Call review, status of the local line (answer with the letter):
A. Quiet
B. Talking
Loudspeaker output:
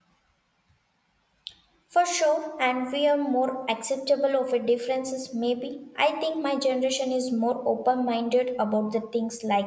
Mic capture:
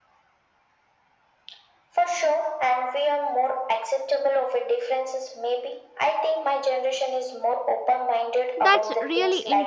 B